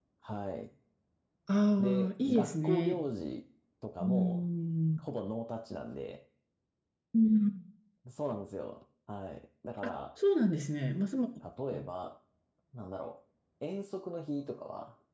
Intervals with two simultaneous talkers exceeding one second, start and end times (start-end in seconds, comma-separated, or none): 1.8-3.0